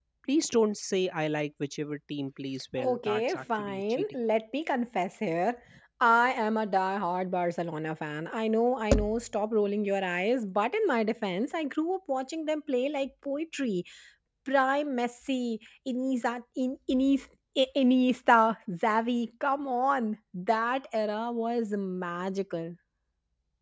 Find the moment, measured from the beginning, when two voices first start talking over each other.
2.8 s

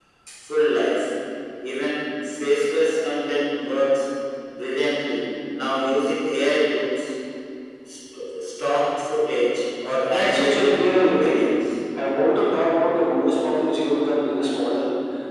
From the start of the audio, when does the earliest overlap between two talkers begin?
10.1 s

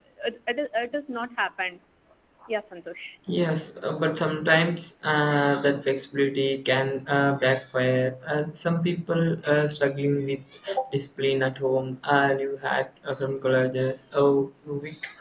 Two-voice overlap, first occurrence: none

